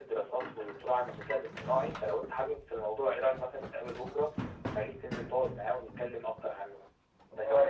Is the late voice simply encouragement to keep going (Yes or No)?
No